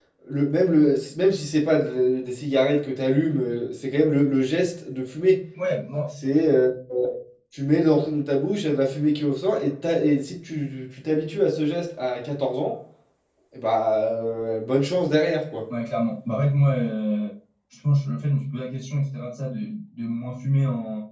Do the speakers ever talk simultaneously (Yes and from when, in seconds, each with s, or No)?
No